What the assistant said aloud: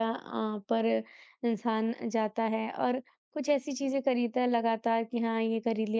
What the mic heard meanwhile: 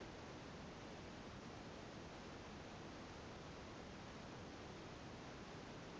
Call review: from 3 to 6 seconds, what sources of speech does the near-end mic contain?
neither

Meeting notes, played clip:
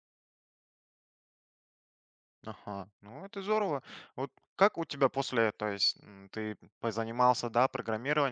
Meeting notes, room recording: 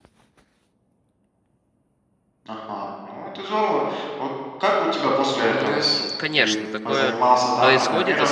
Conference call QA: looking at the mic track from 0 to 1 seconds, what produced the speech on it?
neither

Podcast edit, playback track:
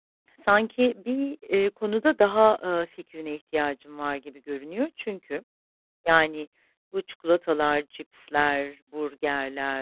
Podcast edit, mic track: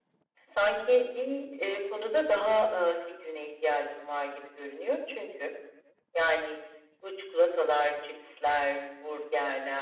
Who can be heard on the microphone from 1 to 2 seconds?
echo only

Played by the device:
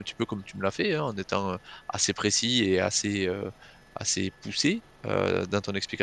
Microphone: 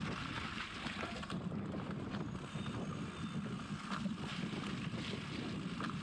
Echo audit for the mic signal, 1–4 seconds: neither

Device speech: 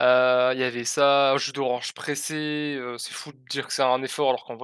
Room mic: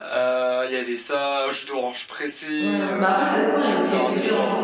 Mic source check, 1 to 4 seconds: both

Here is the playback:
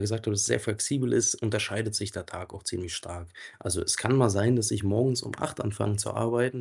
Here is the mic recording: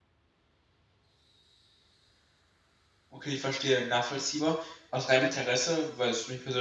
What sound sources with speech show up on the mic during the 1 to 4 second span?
user only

